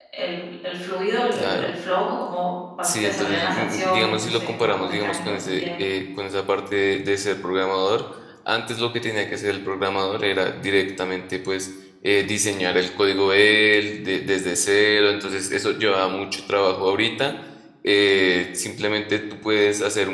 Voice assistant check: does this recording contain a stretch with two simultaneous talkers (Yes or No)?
Yes